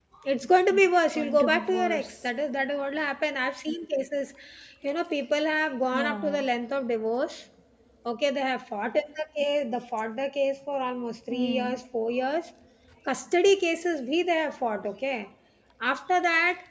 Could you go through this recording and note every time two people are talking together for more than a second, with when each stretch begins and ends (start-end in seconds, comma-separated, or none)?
0.7-2.3